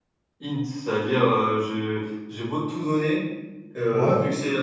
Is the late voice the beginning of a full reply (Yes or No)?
No